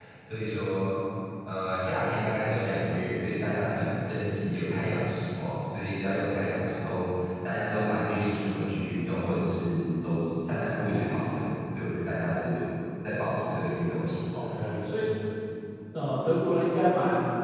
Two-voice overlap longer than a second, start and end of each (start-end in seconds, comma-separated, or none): none